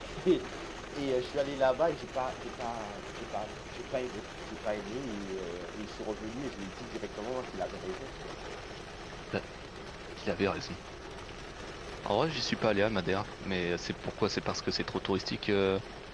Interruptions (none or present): none